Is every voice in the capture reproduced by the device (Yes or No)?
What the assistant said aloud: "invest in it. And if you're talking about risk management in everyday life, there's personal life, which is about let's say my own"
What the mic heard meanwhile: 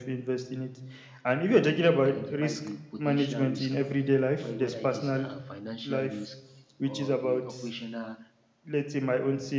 No